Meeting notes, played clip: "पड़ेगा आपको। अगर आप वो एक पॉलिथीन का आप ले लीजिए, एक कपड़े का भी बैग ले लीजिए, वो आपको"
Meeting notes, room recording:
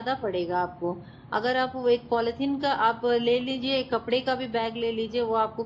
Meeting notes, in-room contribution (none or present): none